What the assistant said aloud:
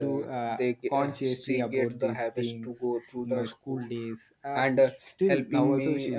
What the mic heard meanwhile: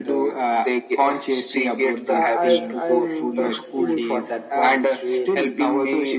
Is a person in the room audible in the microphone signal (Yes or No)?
Yes